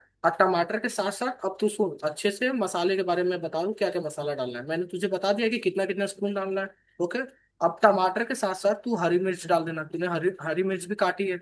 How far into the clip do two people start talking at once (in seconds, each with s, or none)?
none